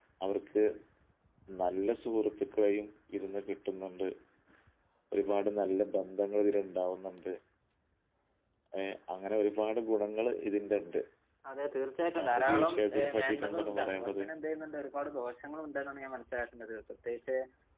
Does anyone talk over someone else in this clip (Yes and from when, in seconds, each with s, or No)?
Yes, from 12.2 s